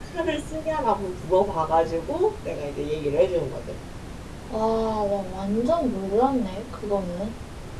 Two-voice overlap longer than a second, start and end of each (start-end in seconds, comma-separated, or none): none